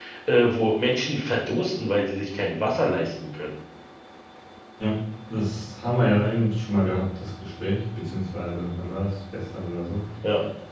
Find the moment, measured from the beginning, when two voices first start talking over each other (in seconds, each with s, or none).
none